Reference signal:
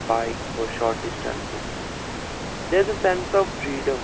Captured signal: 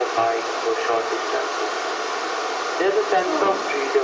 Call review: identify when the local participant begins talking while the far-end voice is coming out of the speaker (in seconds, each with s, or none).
3.1 s